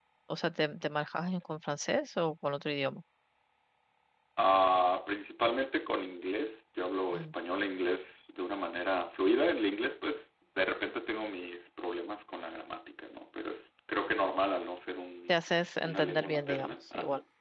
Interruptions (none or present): present